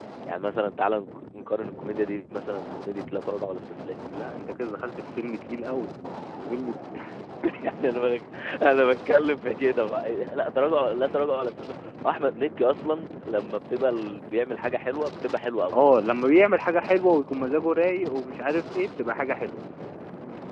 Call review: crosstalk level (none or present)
none